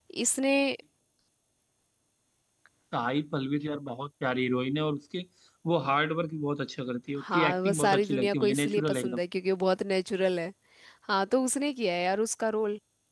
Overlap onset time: 7.2 s

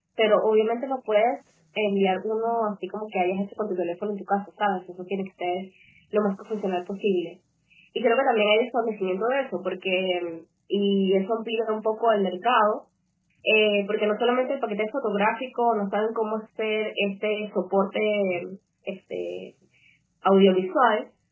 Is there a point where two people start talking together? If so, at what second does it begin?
none

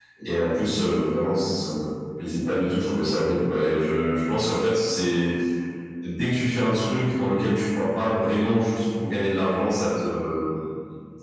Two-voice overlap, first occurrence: none

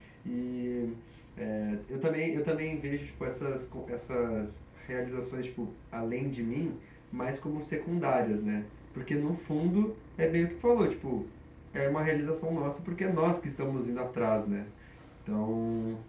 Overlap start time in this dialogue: none

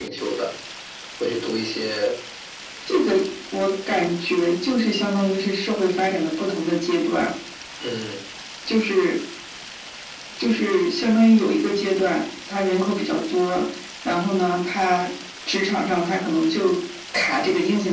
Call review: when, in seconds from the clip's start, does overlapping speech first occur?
none

